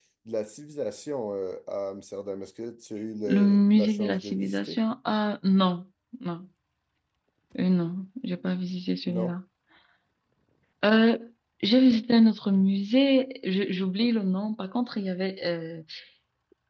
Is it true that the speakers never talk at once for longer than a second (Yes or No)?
No